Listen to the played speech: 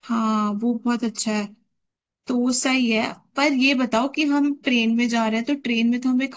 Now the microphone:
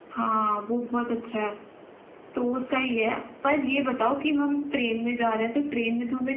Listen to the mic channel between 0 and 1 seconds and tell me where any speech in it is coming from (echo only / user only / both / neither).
echo only